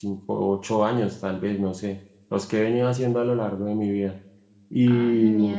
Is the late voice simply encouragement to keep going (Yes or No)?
No